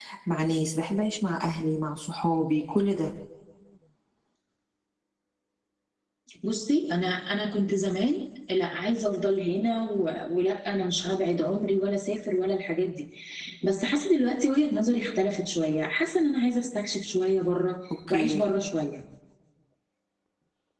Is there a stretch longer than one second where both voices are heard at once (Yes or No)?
No